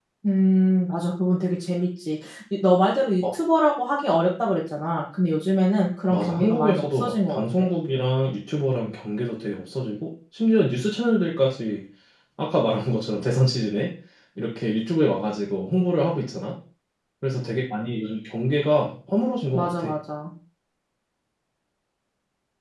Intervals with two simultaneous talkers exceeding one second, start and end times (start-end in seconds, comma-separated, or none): 6.1-7.7